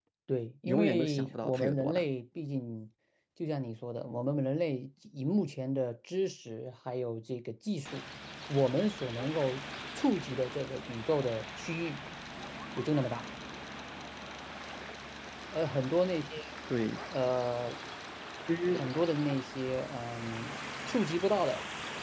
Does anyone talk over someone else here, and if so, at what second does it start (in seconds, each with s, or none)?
0.6 s